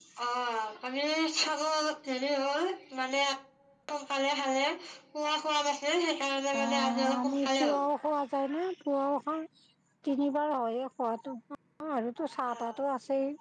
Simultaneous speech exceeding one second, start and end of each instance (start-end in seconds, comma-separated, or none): 6.6-7.8